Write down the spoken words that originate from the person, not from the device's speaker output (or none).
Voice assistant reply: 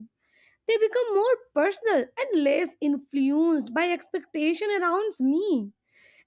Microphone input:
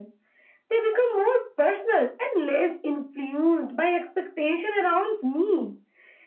none